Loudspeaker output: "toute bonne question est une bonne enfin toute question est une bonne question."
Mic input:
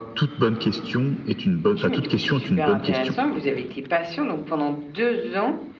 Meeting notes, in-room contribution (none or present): present